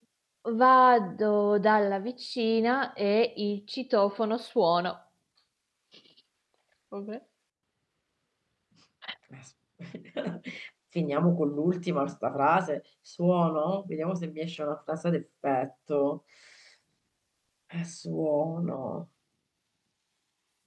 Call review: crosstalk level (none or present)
none